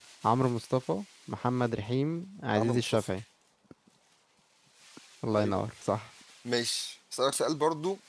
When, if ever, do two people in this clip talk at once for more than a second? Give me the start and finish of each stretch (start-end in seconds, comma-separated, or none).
none